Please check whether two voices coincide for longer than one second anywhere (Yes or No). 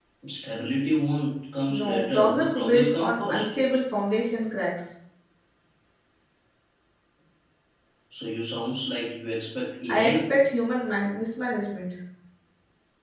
Yes